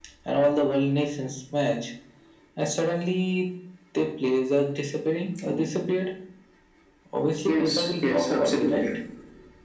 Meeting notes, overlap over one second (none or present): present